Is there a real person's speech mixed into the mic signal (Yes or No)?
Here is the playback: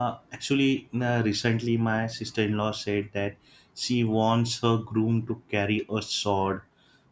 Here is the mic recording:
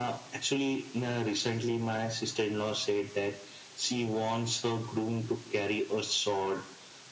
No